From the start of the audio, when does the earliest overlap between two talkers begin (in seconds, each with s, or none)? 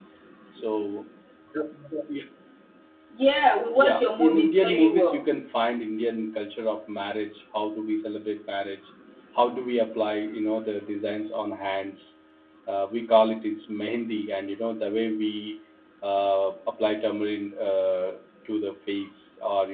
3.8 s